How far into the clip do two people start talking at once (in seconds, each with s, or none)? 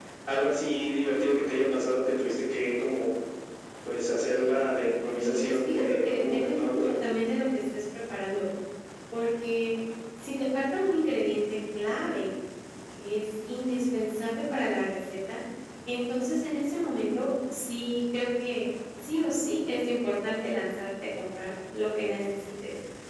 5.2 s